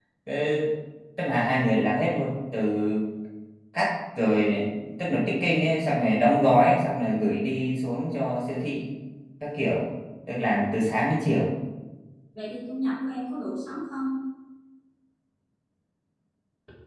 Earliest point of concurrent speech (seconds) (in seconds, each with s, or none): none